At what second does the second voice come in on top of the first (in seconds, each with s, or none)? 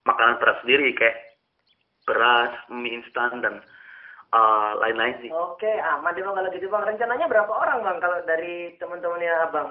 none